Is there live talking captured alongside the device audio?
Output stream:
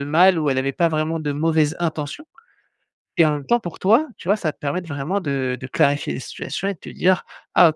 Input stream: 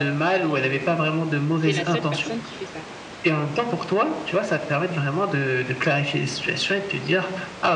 Yes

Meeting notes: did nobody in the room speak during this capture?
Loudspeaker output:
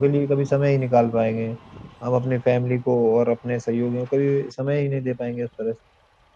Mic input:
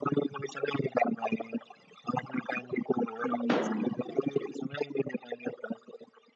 No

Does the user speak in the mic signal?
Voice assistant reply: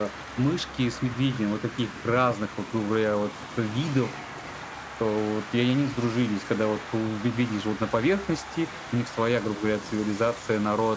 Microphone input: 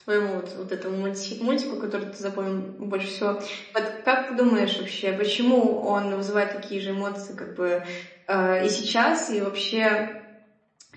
Yes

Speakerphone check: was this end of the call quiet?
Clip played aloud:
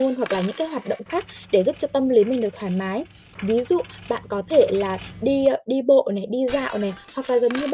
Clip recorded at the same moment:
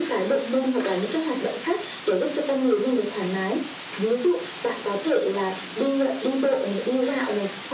Yes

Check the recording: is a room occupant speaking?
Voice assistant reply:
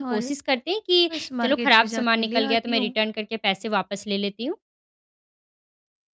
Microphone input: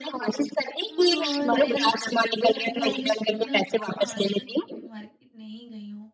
Yes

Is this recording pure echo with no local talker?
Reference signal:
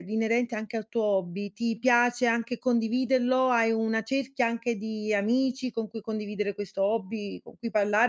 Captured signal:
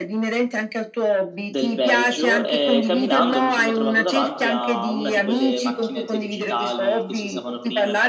No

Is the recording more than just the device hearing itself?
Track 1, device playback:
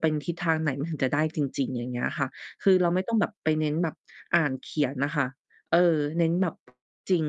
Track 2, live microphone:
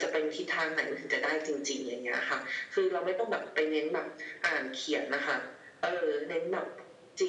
No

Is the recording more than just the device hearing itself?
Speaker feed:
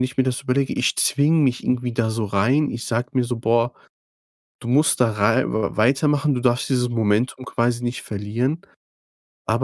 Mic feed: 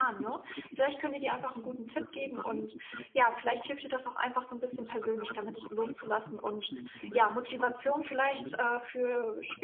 Yes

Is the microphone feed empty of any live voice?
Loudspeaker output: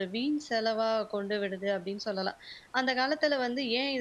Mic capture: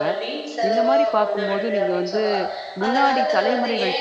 No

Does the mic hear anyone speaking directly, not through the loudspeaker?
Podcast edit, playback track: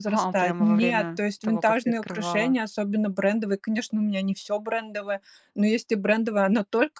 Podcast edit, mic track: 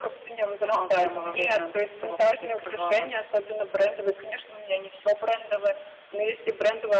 No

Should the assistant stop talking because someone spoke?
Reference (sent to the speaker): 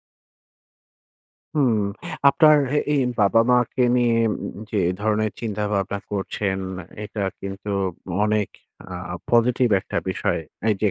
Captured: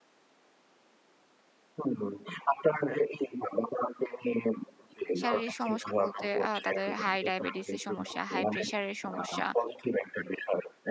Yes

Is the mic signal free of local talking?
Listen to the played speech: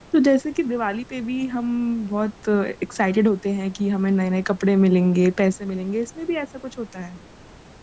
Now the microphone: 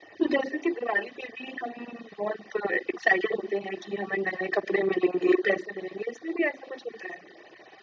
Yes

